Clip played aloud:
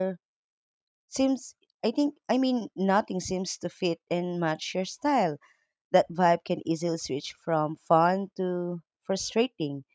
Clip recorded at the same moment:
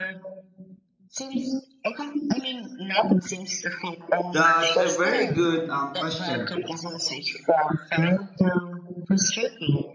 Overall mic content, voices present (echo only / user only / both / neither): both